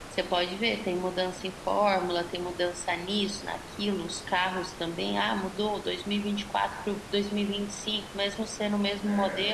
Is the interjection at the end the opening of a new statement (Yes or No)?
No